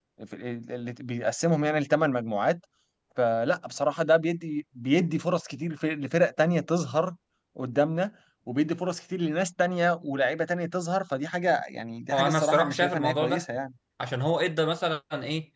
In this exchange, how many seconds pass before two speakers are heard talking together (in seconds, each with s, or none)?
12.1 s